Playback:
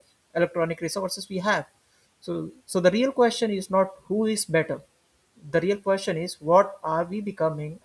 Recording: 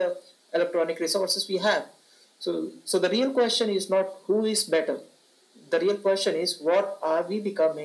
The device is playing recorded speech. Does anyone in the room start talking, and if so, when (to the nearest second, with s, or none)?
none